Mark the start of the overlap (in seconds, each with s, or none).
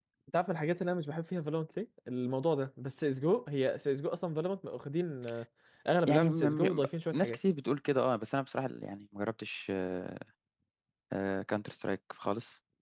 6.1 s